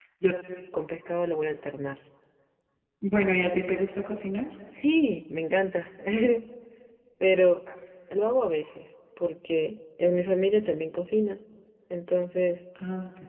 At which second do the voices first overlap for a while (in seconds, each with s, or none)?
none